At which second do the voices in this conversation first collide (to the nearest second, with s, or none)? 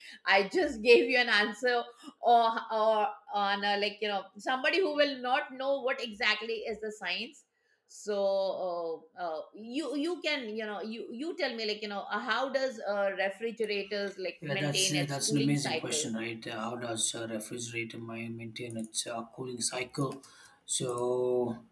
14 s